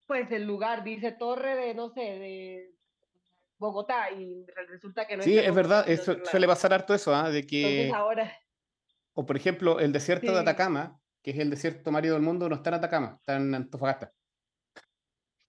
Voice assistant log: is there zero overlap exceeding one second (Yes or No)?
No